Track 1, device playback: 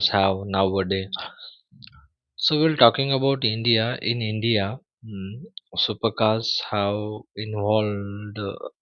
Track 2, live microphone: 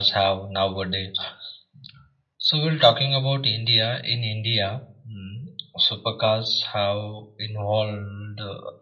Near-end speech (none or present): none